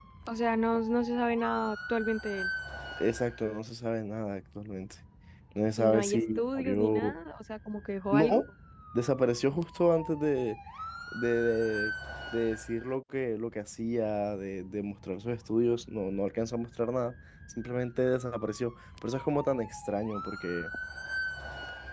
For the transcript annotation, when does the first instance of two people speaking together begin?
5.8 s

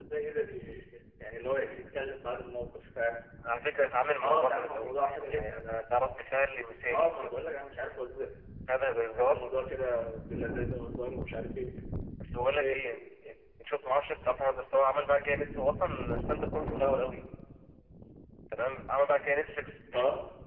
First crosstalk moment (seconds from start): 4.2 s

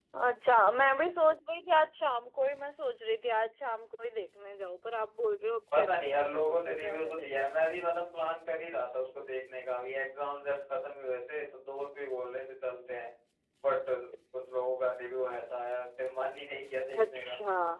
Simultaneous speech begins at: 5.8 s

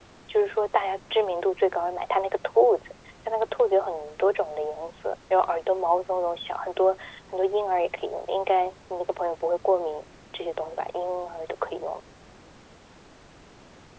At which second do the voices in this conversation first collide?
none

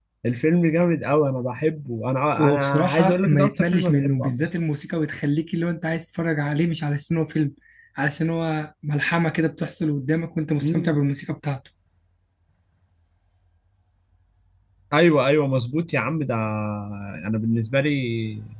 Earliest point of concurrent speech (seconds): 2.4 s

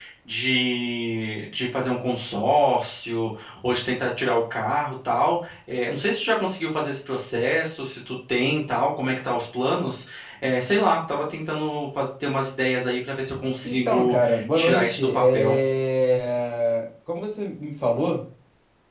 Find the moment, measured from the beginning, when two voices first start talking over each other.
13.6 s

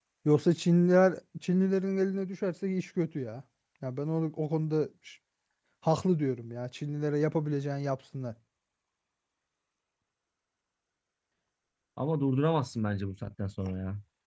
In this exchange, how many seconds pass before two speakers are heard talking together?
none

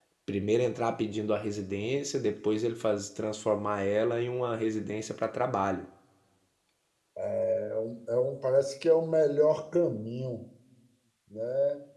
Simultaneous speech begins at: none

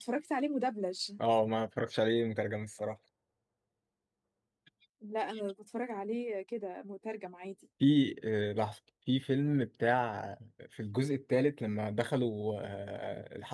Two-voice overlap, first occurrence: none

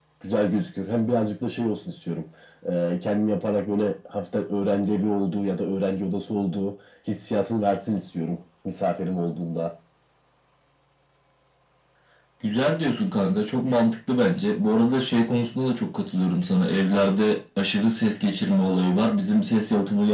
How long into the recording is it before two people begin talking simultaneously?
none

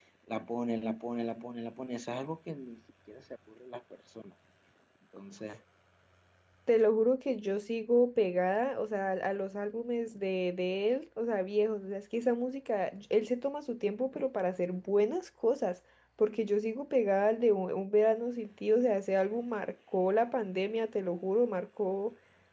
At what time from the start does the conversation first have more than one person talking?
none

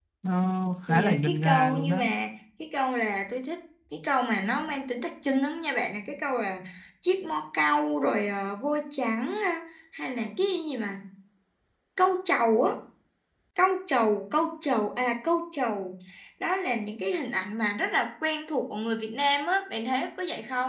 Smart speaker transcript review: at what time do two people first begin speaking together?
0.9 s

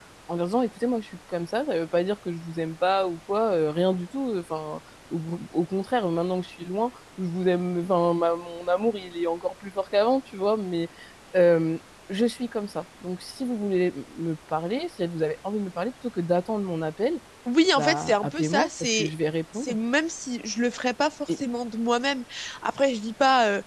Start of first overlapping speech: 17.8 s

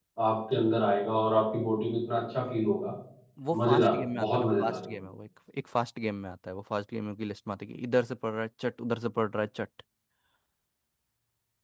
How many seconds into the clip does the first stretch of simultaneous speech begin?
3.7 s

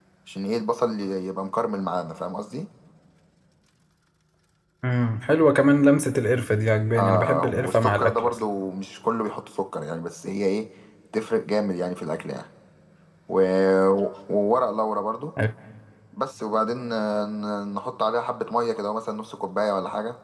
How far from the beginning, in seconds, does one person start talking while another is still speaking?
7.0 s

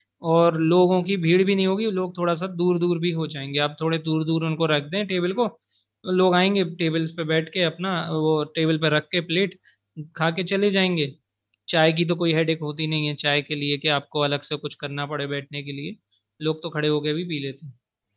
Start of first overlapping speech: none

